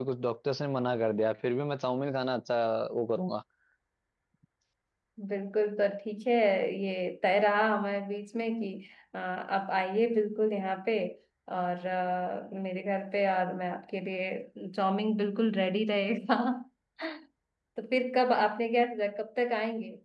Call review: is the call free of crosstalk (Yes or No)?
Yes